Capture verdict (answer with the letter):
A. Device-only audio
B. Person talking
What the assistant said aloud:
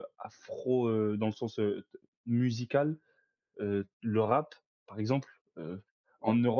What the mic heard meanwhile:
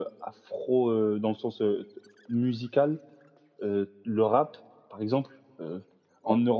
A